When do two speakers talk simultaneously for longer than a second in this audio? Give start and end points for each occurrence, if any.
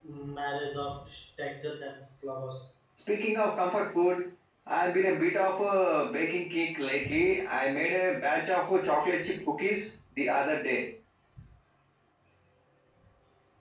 none

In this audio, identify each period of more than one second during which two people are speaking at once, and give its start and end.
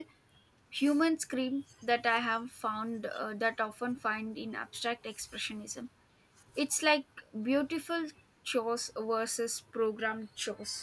none

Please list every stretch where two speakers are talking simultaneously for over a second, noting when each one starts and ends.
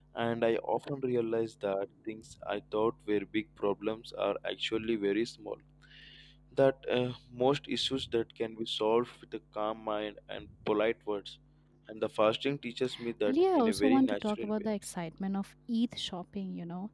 13.3-14.7

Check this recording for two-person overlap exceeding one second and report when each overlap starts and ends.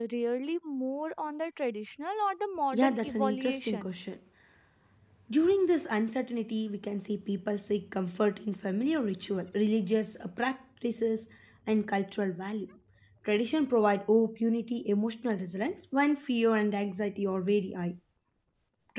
2.7-3.9

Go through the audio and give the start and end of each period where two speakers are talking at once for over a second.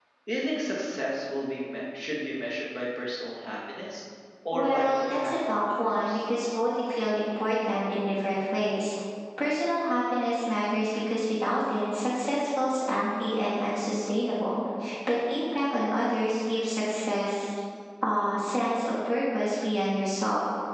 4.5-6.2

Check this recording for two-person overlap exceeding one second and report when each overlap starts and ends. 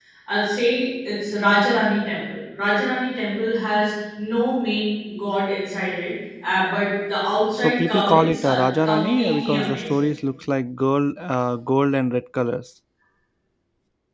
7.5-10.0

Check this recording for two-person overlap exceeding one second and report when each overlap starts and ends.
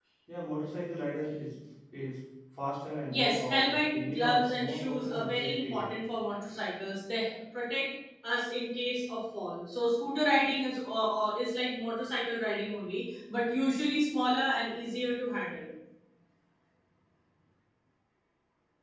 3.1-5.9

